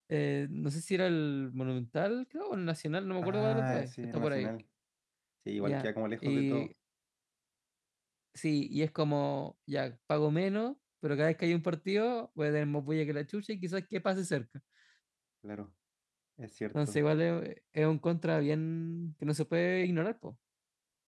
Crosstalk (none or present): present